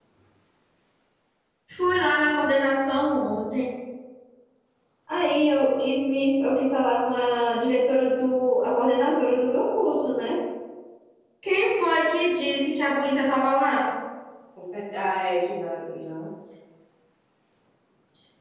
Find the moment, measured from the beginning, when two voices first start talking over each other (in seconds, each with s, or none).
none